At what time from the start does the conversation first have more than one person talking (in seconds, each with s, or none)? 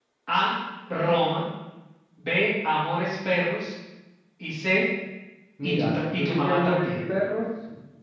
5.6 s